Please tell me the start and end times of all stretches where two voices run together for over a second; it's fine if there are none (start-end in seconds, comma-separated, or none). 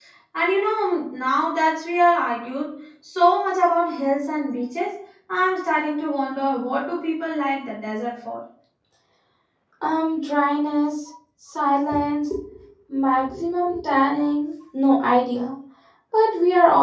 none